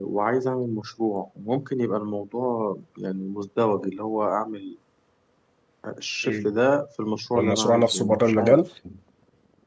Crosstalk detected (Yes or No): Yes